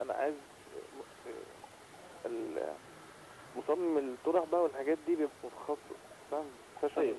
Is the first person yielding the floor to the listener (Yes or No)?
Yes